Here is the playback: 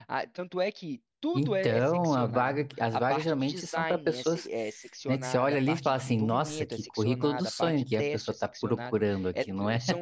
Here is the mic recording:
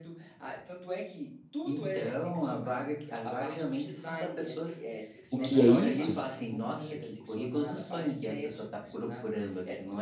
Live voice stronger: Yes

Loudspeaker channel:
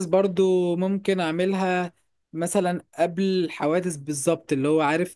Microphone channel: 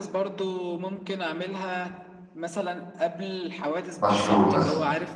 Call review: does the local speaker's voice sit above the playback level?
Yes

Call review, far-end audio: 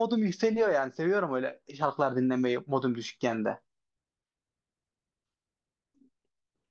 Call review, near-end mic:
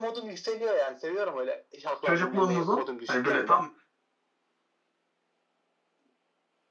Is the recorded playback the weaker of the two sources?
Yes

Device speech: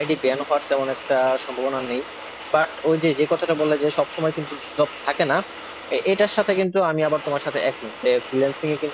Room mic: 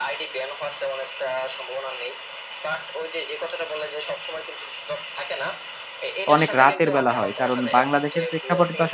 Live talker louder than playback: Yes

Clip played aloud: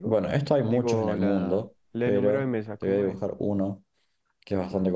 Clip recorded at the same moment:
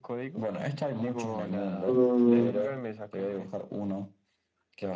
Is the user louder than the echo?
Yes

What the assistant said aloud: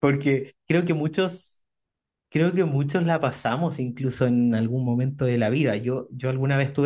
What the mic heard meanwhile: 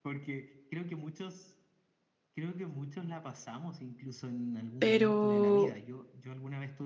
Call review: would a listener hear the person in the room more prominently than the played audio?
Yes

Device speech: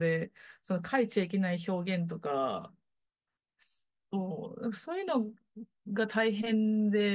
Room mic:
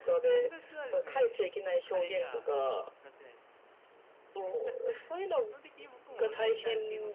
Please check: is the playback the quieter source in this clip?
No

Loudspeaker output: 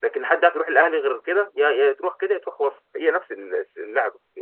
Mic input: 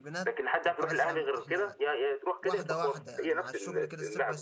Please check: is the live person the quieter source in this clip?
Yes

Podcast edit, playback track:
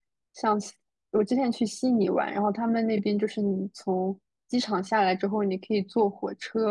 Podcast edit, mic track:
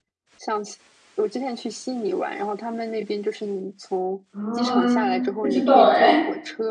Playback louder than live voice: No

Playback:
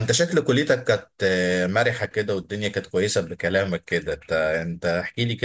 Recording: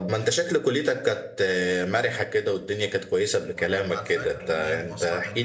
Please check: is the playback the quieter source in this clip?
No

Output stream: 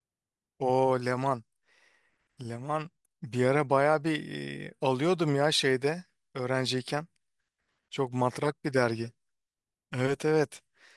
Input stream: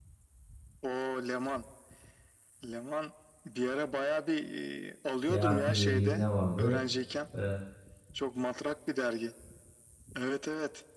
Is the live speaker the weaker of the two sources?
No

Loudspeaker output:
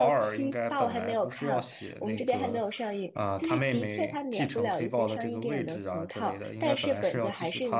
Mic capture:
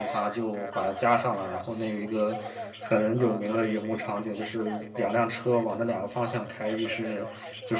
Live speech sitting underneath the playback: No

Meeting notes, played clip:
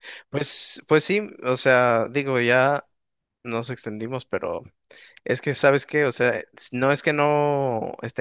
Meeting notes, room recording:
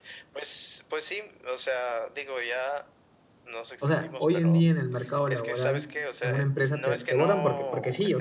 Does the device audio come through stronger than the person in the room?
No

